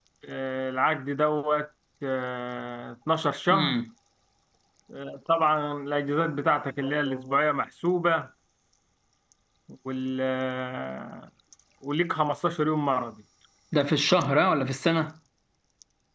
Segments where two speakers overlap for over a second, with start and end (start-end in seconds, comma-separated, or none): none